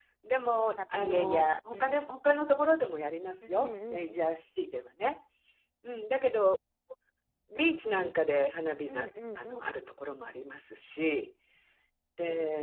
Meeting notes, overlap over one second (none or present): present